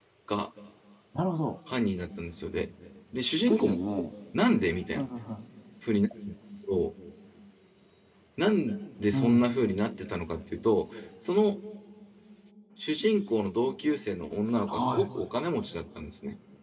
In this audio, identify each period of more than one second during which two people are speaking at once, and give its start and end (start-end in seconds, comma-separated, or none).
none